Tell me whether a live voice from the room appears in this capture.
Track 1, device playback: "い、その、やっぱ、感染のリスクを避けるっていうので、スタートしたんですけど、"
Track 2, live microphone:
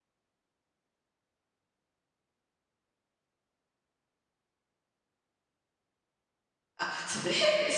Yes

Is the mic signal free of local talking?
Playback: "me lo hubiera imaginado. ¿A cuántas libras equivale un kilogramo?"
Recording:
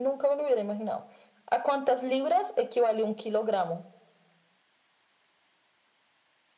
Yes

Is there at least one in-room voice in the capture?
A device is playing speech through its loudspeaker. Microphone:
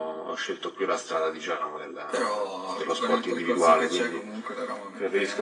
No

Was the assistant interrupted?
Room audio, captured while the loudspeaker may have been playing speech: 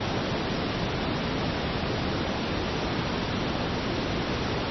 No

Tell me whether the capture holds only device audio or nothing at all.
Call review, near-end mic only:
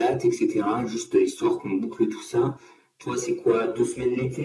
Yes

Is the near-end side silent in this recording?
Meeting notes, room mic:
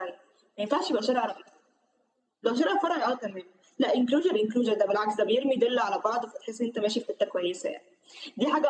Yes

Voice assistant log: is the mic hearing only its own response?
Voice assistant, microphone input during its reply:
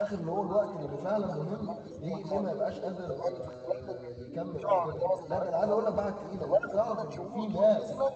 No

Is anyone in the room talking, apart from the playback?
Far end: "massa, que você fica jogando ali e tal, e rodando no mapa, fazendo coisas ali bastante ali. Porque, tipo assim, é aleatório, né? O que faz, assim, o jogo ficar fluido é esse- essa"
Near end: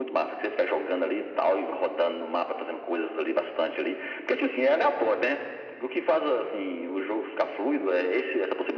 No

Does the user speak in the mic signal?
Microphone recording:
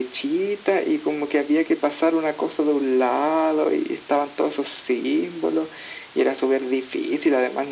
No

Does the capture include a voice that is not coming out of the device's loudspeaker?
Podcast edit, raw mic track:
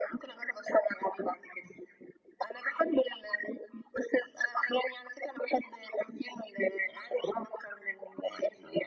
No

